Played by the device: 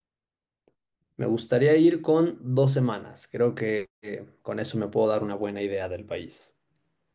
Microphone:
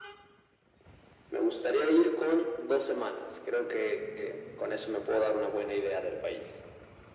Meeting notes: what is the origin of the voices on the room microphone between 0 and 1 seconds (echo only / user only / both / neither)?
neither